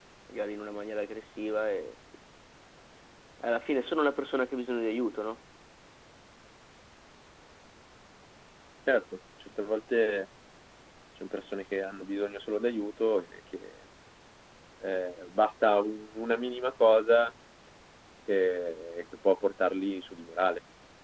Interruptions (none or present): none